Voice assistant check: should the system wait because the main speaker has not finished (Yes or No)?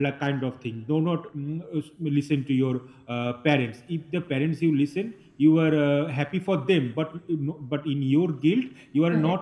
Yes